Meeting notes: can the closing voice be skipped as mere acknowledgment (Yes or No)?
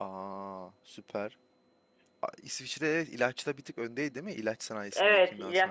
No